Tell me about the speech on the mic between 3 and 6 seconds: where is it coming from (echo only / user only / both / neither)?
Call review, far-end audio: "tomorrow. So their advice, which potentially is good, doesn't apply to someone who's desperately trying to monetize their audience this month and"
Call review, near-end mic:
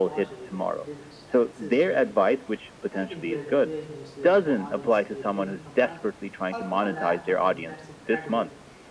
both